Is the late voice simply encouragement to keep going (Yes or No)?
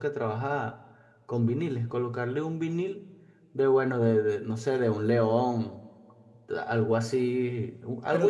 No